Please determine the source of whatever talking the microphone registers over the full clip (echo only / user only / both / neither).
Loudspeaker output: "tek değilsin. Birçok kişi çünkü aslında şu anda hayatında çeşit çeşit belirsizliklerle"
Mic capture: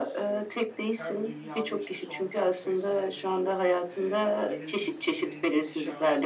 both